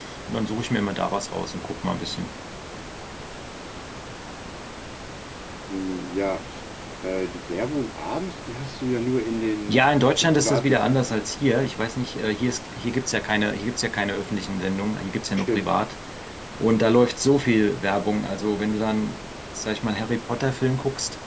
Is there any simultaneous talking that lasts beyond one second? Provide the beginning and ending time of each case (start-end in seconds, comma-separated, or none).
9.7-11.2